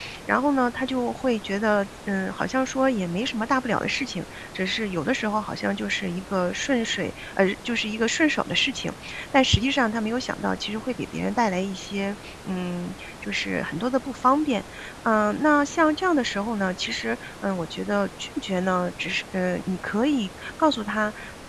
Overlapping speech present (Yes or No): No